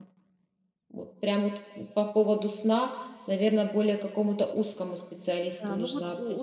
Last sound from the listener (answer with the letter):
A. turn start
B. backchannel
A